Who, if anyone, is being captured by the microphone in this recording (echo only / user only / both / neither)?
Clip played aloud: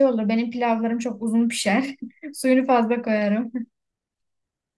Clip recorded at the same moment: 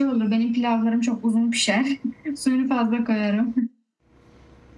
echo only